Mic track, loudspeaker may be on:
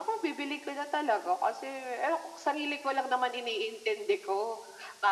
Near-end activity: none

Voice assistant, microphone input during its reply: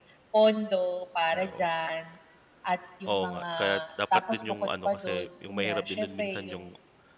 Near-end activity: present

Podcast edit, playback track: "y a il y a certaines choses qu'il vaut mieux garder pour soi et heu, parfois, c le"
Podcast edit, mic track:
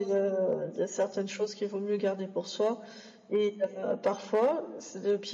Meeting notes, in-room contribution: none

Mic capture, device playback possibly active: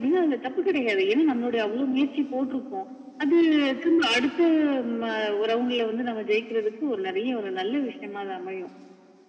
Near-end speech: none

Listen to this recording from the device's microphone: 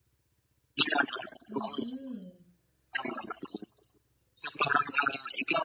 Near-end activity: present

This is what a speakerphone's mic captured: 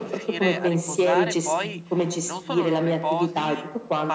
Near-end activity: present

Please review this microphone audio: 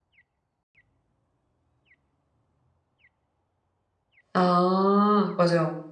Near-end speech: present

